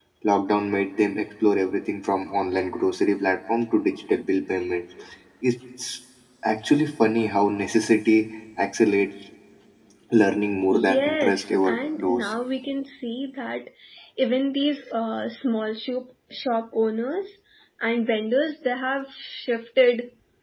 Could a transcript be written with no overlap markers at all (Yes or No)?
No